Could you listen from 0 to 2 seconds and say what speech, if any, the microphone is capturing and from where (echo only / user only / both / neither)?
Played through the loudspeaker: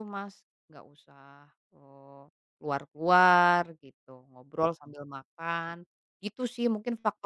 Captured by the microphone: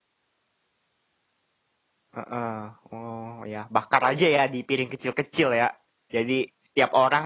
neither